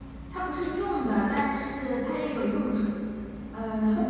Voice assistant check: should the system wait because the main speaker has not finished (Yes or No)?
Yes